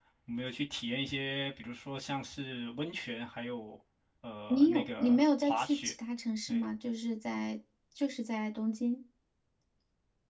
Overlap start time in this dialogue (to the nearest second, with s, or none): 4 s